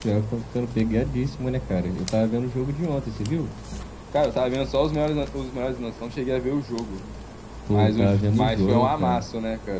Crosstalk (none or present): present